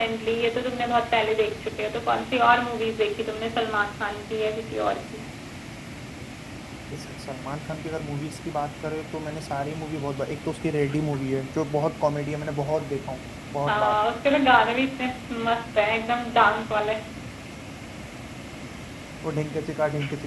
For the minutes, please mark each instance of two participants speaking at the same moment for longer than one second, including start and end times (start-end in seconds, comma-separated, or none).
none